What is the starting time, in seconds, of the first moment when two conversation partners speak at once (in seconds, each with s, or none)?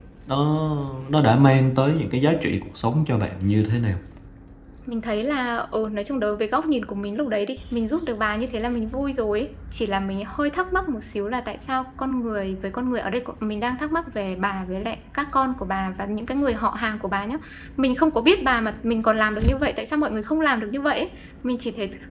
none